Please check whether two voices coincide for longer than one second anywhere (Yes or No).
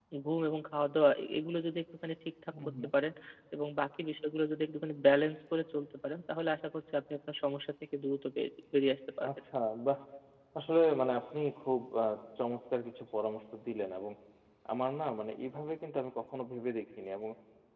No